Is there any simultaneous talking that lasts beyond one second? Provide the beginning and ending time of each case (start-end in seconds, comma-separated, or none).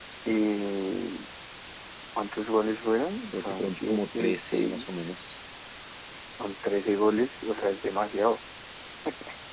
3.3-5.0